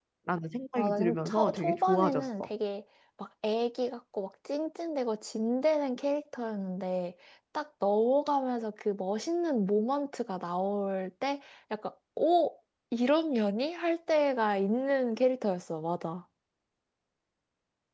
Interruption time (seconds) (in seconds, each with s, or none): 0.8 s